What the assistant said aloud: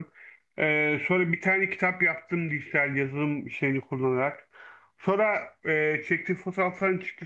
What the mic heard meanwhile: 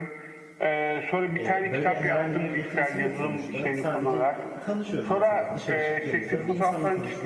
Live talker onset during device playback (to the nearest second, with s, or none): 1 s